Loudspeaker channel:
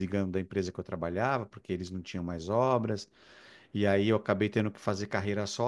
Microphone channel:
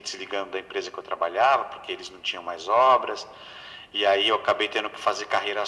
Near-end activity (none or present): none